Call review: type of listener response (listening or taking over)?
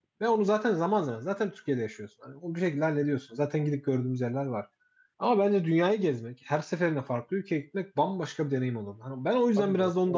taking over